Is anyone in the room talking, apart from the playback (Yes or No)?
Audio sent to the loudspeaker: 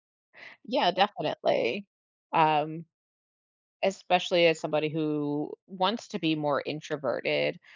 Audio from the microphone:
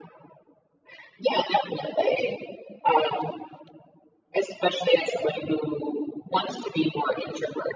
No